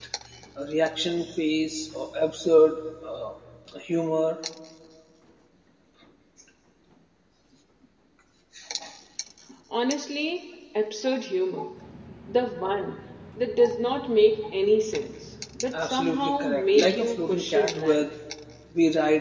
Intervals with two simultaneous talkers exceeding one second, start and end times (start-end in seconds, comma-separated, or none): 15.7-18.1